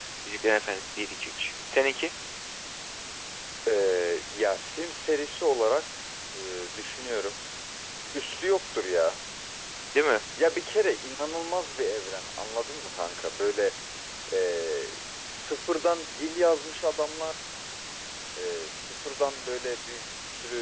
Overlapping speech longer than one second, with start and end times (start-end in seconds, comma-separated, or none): none